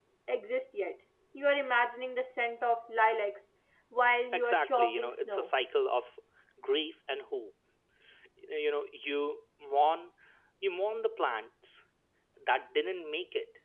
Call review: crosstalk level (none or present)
present